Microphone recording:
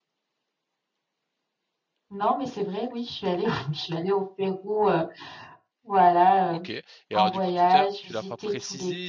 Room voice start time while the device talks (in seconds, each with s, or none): 6.5 s